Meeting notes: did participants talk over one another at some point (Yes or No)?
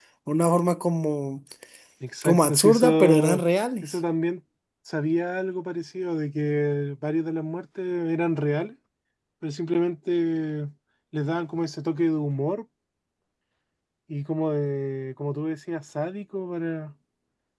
Yes